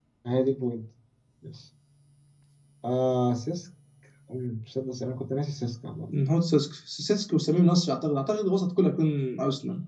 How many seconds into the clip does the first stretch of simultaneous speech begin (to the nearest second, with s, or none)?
none